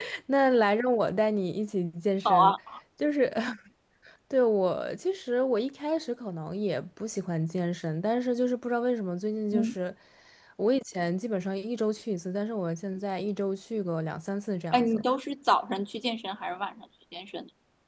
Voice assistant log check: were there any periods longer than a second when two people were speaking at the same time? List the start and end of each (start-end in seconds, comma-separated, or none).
none